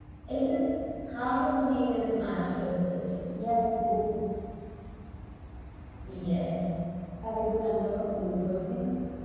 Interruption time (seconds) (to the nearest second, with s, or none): none